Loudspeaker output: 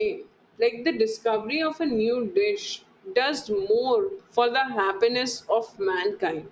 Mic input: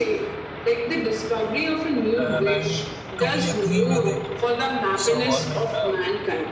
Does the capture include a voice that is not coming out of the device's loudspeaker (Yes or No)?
Yes